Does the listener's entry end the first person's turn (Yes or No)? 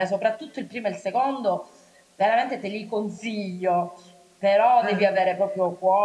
No